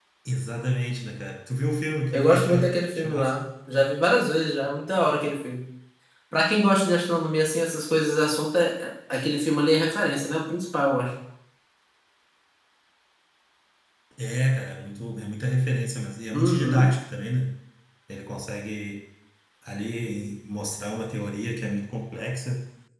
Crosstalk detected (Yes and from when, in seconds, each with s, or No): Yes, from 2.1 s